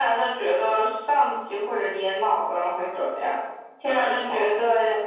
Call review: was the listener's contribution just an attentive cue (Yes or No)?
Yes